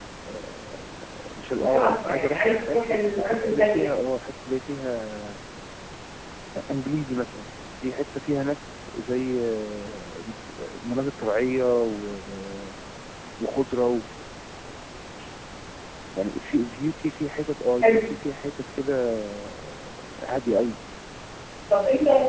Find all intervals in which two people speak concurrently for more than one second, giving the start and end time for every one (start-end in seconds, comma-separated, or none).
1.6-3.9